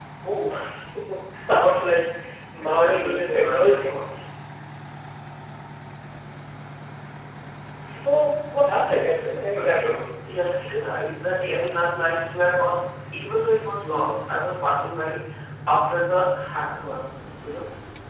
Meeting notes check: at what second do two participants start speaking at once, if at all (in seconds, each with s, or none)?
2.6 s